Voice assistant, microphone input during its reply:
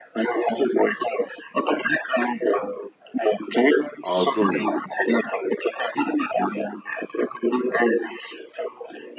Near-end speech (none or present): present